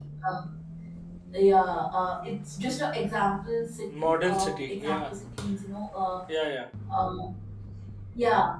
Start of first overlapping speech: 3.9 s

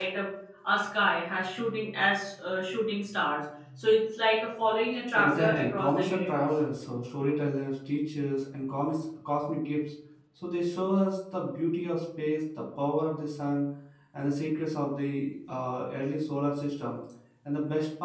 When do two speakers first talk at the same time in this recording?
5.1 s

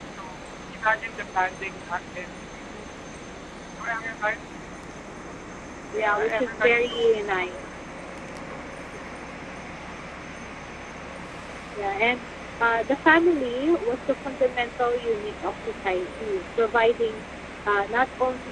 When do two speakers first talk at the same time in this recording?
6.0 s

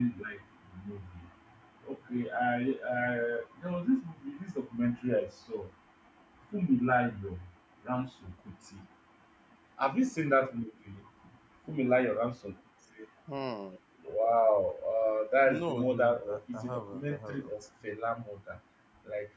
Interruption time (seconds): 15.4 s

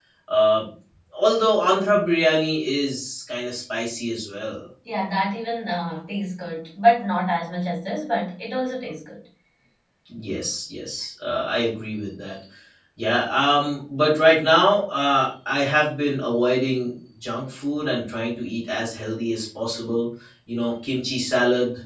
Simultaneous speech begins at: none

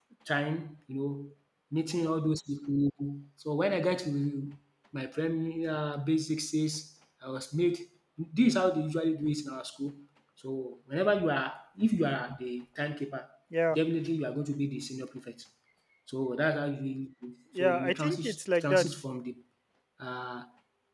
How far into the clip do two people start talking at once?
17.6 s

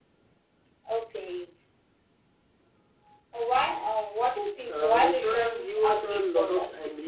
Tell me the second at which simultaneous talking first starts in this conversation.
4.7 s

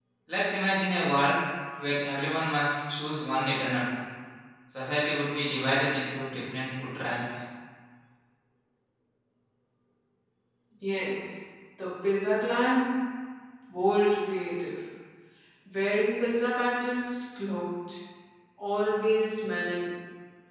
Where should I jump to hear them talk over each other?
none

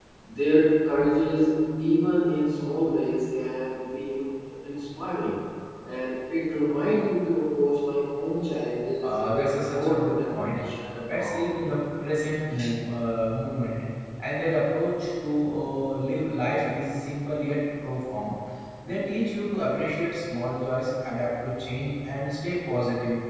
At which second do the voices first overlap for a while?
9.0 s

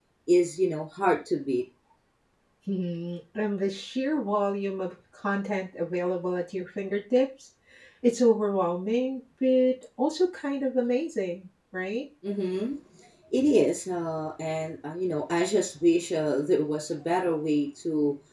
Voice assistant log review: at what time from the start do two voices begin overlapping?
none

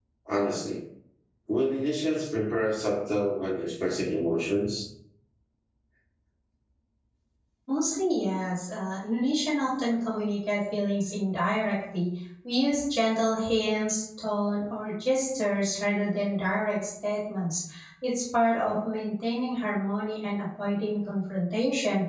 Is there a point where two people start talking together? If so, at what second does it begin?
none

